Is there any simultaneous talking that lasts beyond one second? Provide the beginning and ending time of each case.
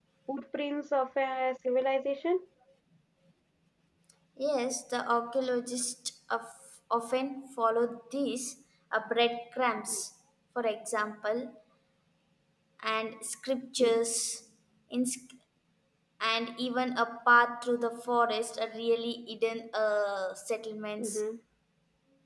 none

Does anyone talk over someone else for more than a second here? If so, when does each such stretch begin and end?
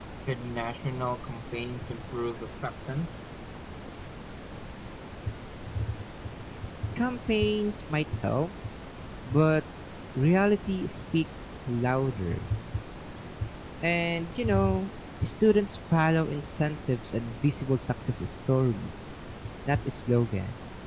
none

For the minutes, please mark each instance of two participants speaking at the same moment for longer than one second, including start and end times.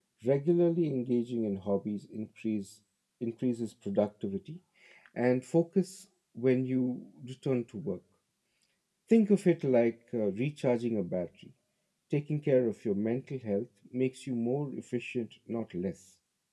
none

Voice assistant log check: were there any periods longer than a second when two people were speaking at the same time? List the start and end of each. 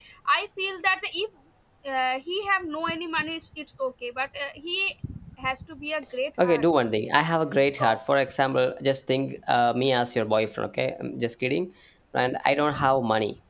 none

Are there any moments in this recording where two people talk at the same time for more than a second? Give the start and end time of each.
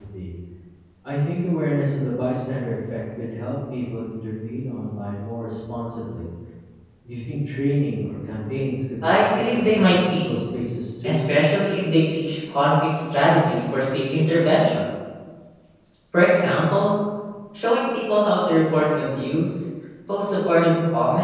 9.0-10.4

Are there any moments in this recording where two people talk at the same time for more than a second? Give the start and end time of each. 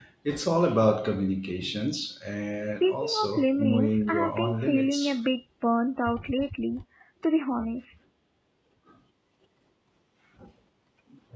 2.6-5.2

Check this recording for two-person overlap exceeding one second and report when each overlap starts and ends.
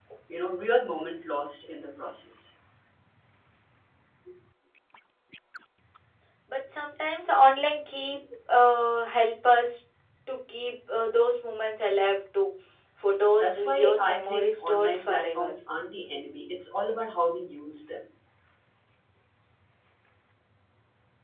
13.4-15.5

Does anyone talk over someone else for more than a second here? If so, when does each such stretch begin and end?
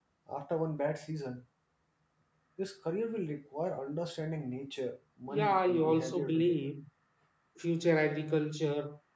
5.3-6.7

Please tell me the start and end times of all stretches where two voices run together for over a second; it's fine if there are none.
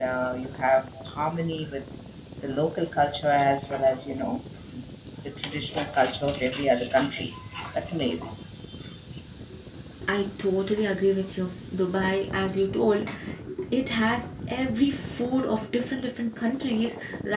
none

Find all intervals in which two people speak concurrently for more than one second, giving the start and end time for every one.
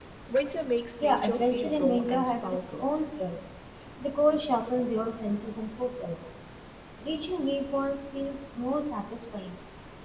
1.0-2.9

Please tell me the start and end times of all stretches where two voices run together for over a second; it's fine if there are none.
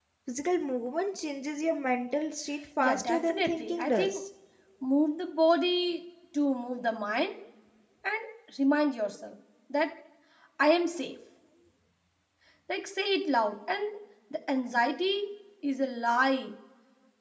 2.8-4.1

